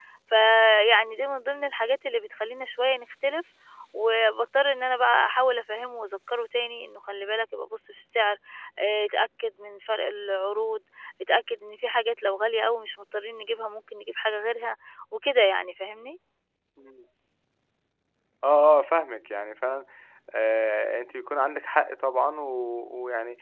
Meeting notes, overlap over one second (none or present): none